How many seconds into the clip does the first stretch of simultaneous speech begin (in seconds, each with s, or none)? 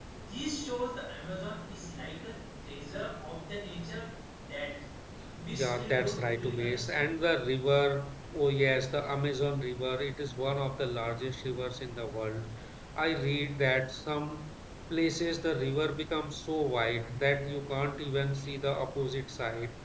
5.6 s